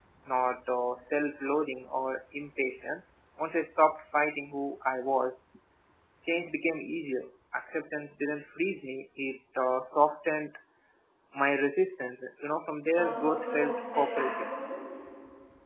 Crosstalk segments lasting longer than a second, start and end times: 12.9-14.5

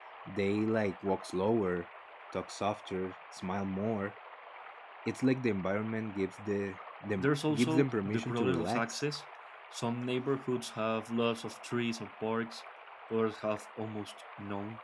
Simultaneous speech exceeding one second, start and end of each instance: 7.2-9.0

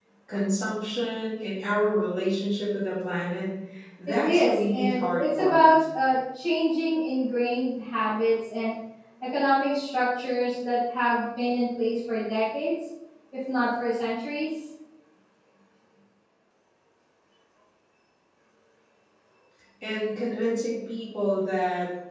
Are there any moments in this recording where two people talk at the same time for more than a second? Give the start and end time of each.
4.1-5.6

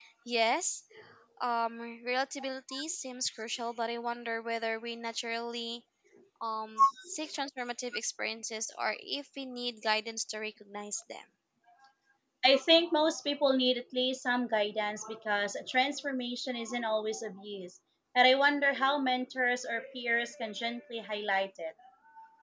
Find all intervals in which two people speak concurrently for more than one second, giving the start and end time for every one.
none

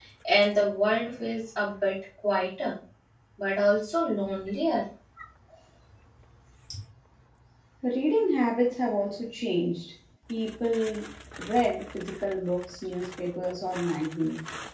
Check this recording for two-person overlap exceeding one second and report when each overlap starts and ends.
none

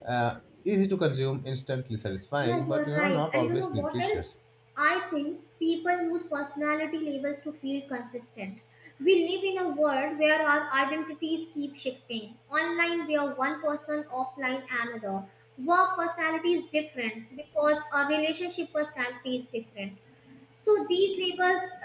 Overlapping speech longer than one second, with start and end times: 2.4-4.2

